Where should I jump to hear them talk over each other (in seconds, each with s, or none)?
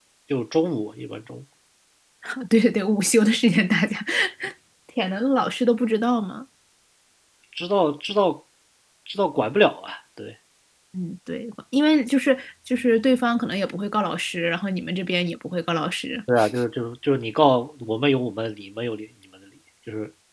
none